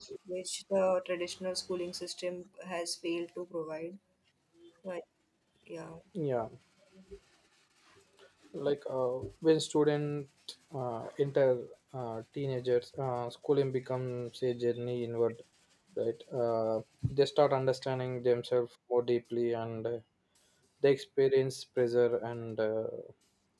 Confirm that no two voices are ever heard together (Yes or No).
Yes